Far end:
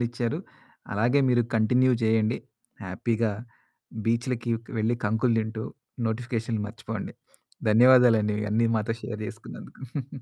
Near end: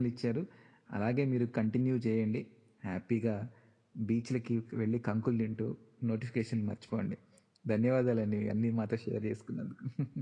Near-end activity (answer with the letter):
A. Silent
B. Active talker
A